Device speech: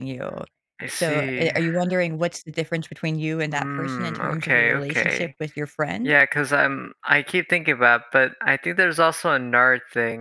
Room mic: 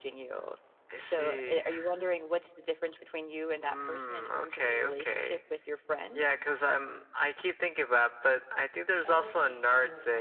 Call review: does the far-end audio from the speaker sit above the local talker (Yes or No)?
Yes